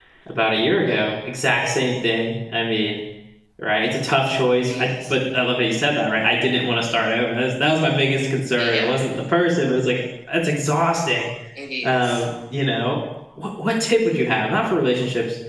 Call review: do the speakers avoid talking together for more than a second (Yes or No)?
Yes